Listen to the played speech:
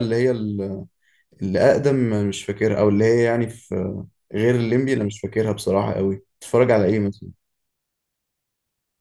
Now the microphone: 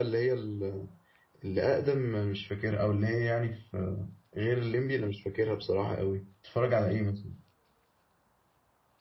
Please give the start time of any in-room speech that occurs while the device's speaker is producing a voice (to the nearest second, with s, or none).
none